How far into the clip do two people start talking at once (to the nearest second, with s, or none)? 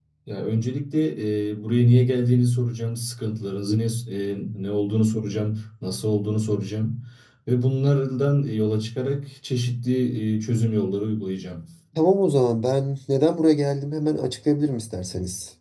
none